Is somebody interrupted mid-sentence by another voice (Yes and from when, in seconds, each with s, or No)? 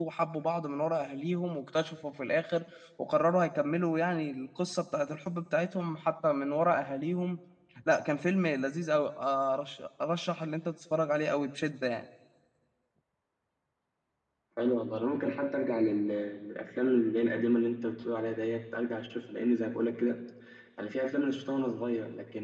No